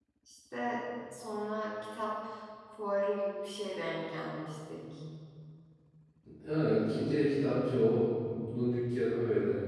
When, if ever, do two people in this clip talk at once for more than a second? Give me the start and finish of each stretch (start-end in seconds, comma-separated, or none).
none